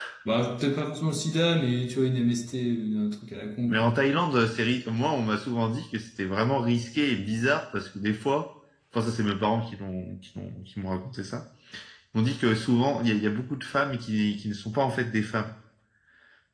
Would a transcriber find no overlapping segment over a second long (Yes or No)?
Yes